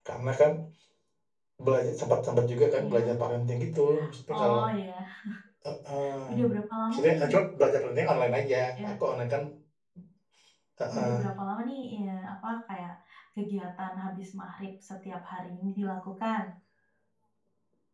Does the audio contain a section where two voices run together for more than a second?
No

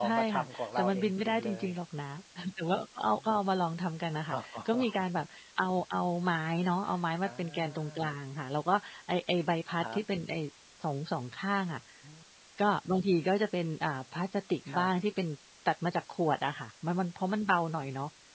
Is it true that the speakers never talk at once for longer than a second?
No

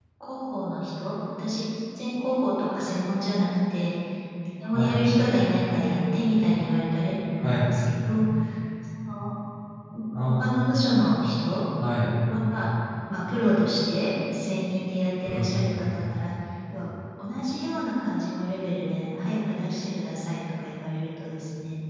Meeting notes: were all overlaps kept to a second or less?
Yes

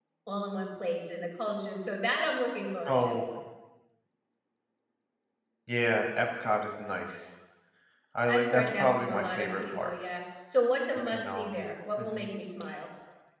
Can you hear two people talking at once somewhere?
Yes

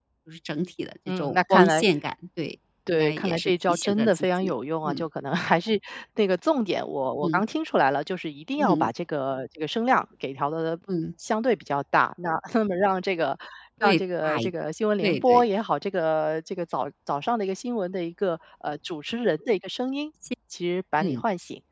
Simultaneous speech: Yes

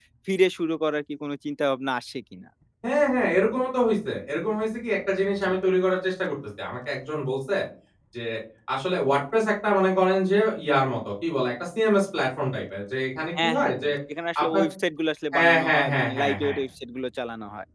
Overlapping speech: Yes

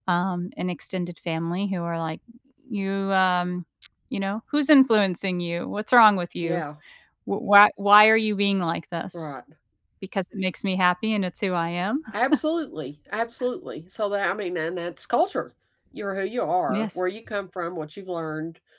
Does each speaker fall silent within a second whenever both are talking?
Yes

